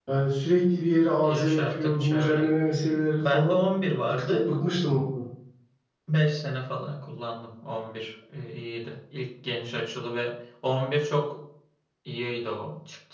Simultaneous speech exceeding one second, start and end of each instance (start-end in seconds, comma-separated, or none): 1.2-2.5